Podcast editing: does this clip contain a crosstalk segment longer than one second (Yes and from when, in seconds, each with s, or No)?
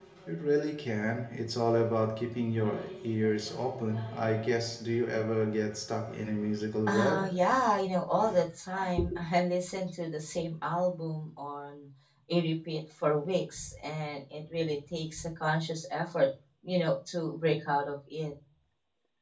No